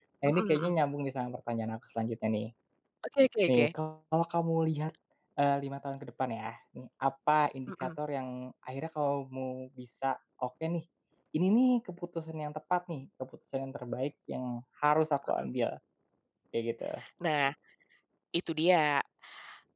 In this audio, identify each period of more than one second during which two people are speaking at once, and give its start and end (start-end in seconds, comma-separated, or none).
none